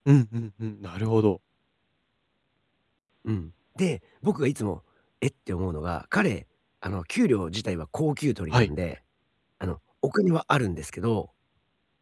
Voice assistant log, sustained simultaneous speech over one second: none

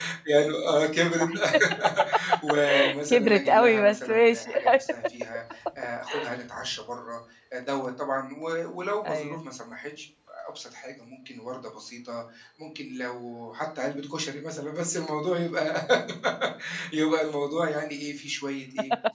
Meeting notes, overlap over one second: present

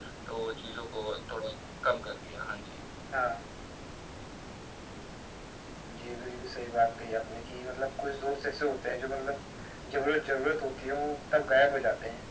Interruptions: none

